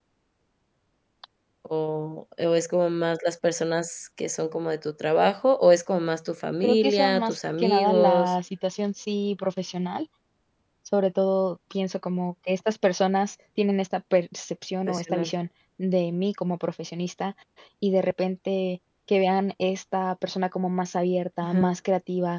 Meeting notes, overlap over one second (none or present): present